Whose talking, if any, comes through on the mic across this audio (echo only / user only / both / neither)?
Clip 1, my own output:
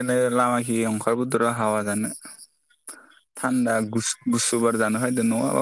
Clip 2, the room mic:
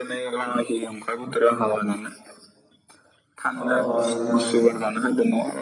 both